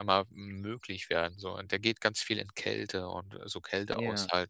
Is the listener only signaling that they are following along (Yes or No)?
Yes